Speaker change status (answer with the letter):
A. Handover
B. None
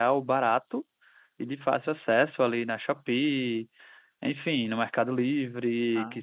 B